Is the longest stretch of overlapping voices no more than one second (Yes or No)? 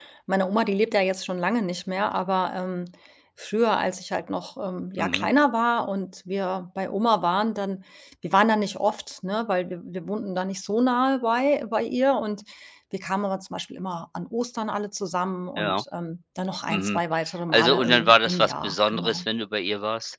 No